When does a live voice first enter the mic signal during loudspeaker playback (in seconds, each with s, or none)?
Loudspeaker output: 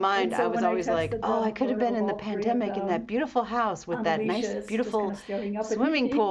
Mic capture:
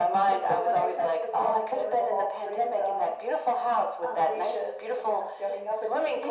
none